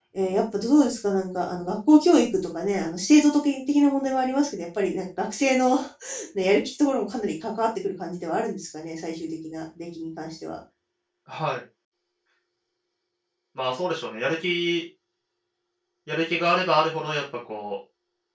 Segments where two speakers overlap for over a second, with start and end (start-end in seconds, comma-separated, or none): none